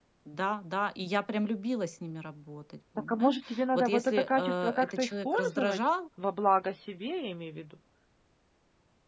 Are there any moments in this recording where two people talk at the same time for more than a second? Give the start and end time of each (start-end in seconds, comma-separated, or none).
3.1-5.8